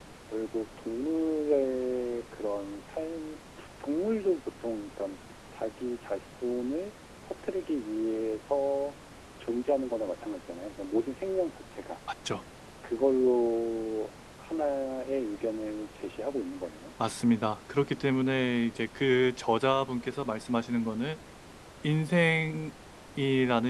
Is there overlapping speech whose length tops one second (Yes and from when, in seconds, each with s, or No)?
No